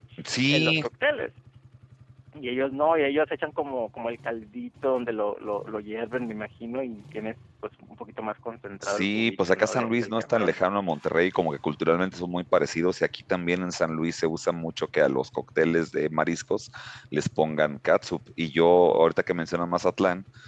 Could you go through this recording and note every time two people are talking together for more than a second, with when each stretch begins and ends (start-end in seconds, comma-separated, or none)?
8.8-10.6